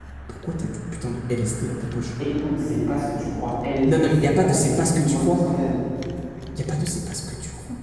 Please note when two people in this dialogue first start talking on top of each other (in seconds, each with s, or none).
3.9 s